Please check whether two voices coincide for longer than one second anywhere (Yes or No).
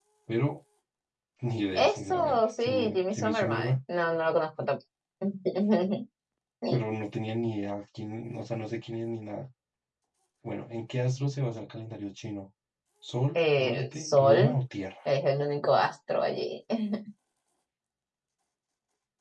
Yes